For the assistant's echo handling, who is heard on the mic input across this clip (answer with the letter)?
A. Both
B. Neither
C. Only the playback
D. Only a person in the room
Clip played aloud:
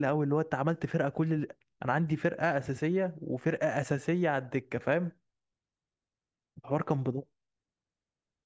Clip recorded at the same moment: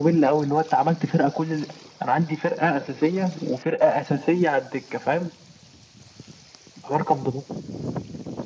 C